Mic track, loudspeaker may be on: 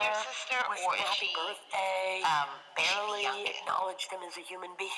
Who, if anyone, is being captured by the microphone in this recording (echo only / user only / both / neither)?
echo only